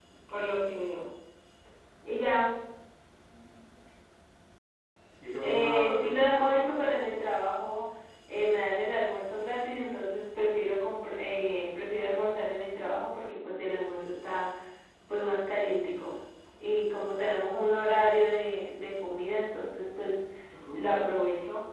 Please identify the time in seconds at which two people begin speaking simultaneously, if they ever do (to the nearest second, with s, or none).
5 s